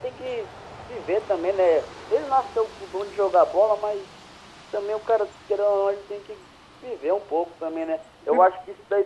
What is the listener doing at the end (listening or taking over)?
listening